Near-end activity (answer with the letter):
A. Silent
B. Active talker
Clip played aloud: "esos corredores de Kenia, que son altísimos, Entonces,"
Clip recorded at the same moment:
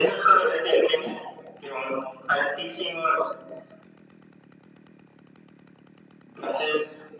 A